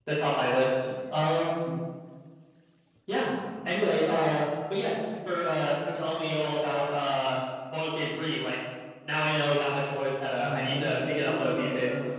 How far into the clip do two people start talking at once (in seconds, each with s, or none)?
10.4 s